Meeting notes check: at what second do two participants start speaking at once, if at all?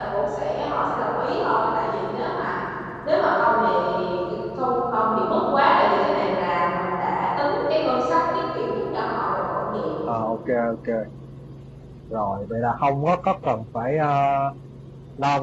none

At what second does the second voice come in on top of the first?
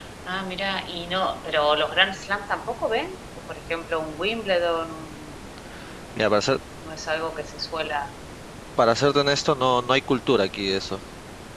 none

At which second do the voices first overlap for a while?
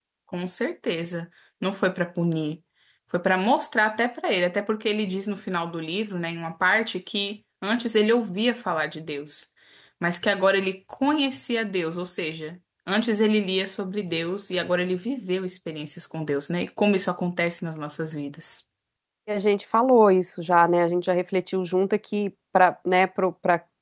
none

